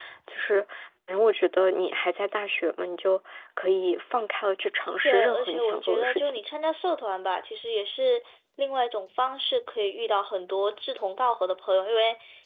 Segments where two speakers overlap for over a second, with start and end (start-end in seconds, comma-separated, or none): 5.0-6.4